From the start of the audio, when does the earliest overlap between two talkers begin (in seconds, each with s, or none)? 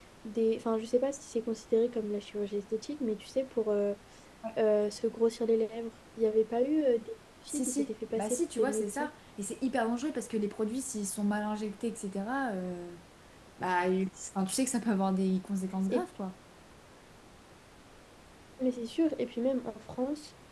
7.5 s